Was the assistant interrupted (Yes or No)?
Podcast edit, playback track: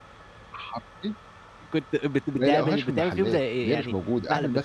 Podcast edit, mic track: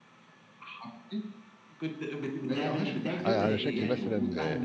Yes